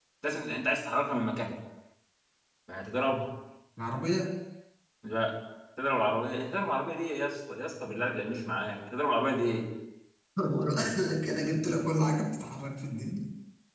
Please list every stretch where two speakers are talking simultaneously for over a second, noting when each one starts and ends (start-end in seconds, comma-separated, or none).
none